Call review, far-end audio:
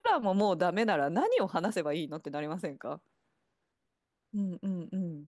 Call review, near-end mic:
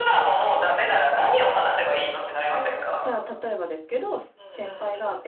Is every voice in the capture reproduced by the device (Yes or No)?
No